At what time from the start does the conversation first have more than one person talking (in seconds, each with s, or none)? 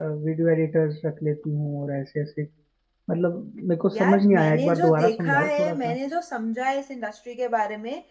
3.9 s